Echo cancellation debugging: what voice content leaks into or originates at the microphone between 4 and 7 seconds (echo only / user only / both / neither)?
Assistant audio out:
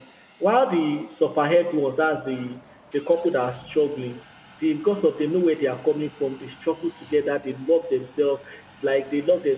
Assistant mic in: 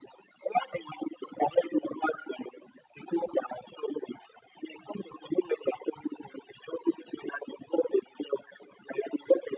echo only